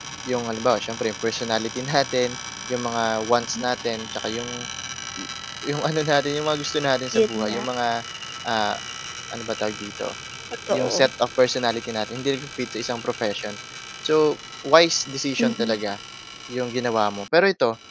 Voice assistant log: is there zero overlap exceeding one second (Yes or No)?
Yes